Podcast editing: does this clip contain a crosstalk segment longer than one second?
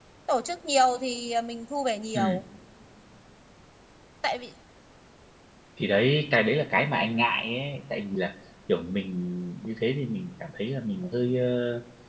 No

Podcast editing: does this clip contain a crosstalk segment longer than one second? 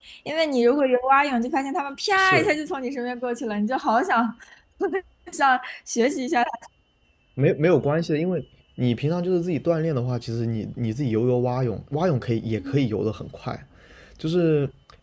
No

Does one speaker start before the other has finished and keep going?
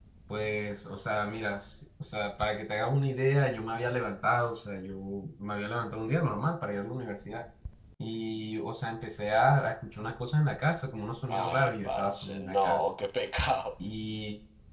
Yes, from 11.3 s

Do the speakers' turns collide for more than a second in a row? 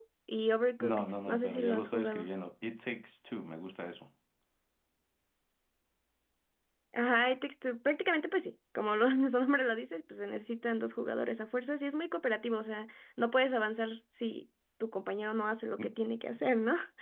Yes, from 0.8 s

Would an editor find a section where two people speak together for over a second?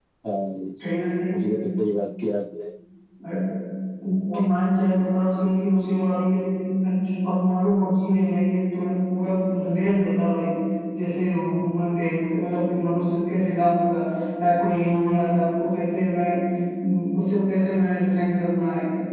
No

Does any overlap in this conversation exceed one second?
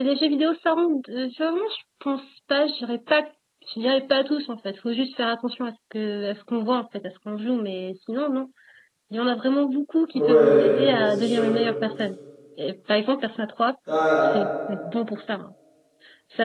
Yes, from 10.1 s

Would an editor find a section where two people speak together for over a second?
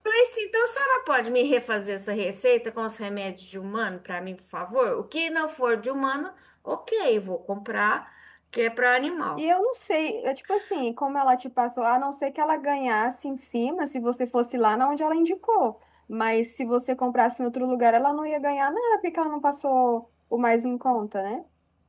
No

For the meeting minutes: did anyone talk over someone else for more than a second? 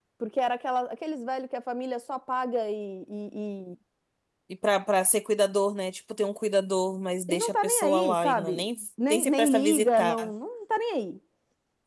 Yes, from 7.3 s

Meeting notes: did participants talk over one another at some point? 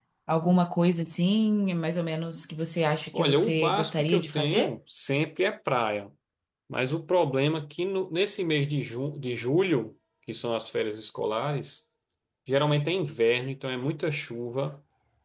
Yes, from 3.1 s

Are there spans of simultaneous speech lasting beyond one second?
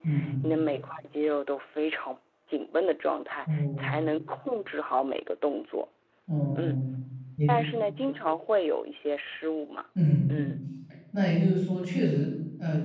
No

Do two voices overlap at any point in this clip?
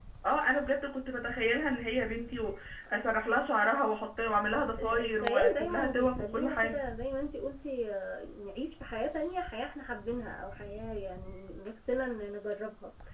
Yes, from 4.7 s

